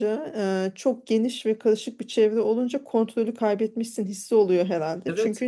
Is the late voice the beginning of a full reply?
No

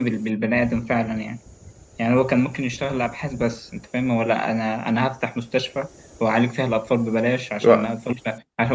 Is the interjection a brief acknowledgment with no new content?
Yes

